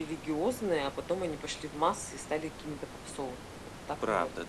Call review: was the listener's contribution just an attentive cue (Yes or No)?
No